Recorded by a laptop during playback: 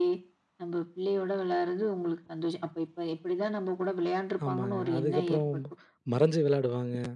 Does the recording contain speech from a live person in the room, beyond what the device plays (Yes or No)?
Yes